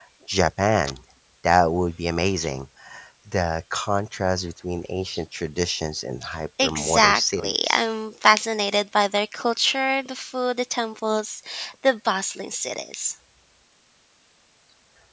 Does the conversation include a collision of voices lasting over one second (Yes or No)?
Yes